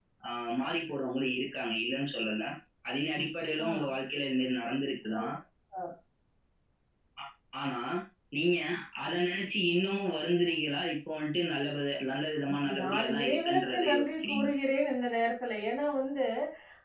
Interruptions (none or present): present